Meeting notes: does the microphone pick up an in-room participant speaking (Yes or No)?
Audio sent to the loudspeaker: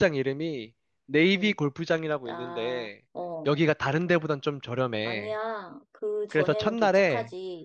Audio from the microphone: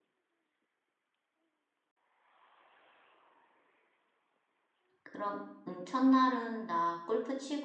Yes